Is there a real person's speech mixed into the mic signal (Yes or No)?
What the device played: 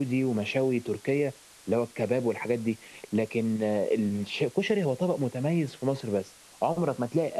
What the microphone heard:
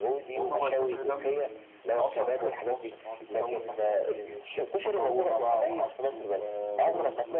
Yes